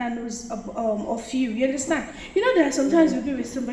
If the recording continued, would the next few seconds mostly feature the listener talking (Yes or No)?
No